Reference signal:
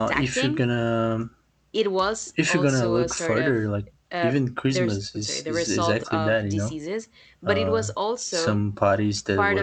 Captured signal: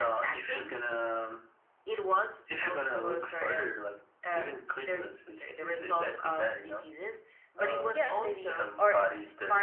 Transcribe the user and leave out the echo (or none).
Yes, maybe, or